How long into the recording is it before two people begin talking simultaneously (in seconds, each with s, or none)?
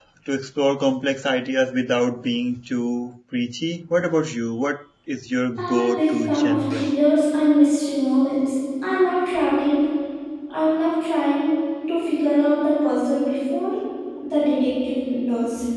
5.6 s